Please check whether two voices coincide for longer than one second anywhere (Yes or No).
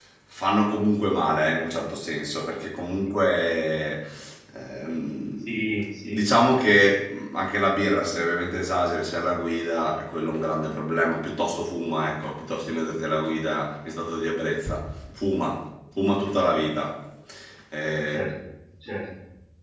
No